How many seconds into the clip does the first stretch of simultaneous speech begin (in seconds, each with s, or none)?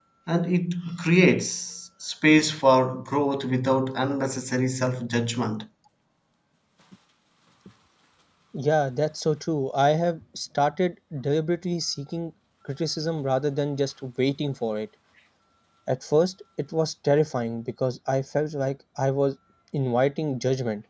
none